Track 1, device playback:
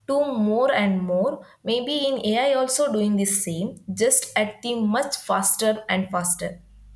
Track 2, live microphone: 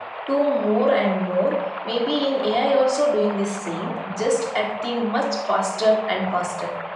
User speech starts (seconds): none

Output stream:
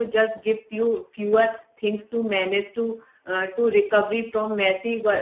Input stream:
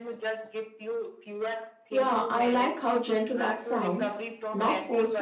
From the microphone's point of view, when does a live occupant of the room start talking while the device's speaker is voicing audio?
1.9 s

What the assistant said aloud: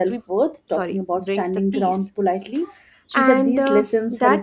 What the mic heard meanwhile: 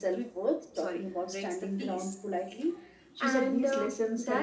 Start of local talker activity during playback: none

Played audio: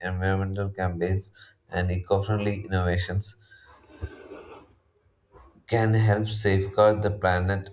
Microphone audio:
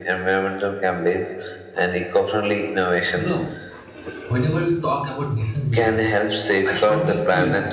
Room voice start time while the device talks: 3.1 s

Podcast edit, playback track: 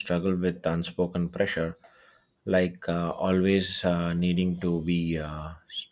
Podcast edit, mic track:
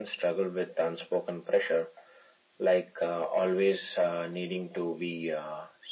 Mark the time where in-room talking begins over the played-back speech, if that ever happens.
none

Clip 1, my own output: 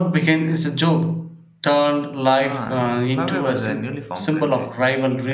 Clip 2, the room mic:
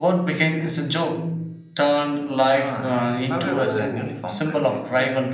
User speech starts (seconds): 3.4 s

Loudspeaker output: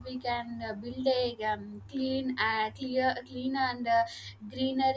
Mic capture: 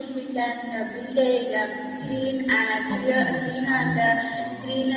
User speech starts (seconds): 2.0 s

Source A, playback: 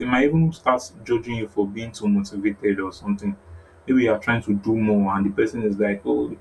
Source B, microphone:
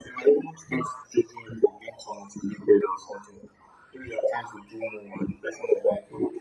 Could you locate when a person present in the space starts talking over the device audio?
none

